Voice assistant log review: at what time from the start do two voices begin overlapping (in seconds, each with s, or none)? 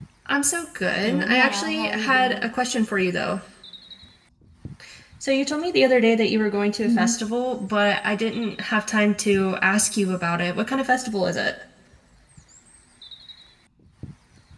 1.0 s